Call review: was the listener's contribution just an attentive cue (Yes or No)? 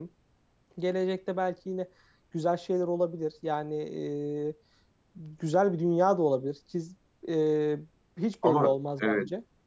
No